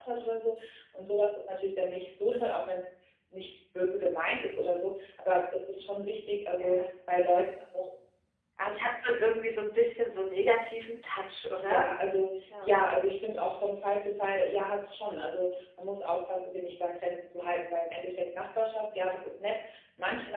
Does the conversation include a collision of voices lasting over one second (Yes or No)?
No